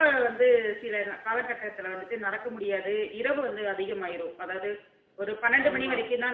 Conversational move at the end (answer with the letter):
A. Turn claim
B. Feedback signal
B